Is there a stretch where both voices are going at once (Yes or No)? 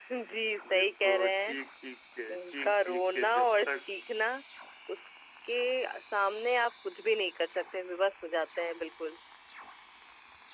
Yes